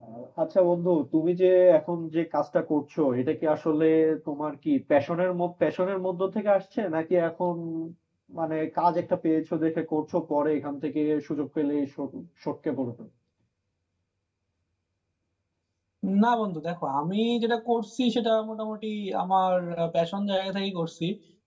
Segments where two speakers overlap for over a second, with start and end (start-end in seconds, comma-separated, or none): none